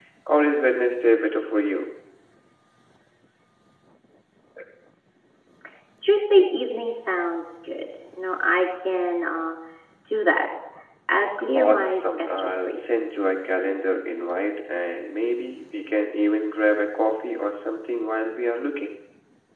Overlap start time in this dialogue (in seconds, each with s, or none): 11.6 s